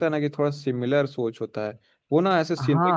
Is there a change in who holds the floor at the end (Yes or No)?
No